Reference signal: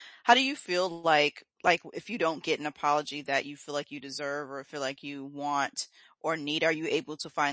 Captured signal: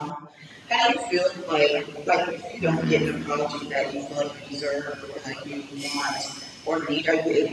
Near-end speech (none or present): present